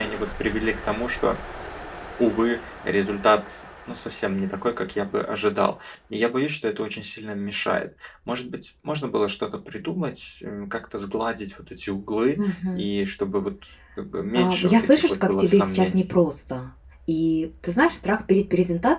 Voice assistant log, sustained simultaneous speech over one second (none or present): present